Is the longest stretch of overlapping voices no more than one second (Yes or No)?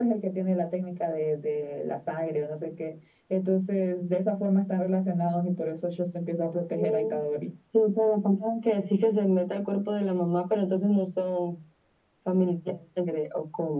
Yes